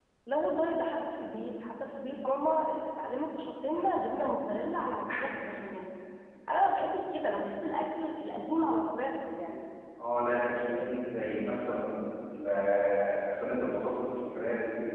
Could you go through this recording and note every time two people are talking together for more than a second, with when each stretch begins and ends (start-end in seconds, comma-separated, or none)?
none